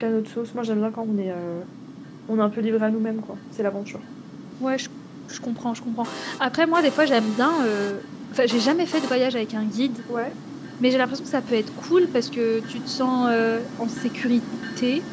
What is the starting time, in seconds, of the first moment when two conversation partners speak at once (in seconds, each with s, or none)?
none